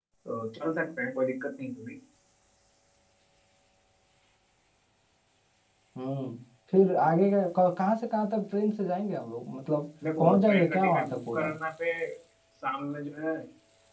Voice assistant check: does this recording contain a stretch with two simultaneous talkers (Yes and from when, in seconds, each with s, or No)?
Yes, from 10.0 s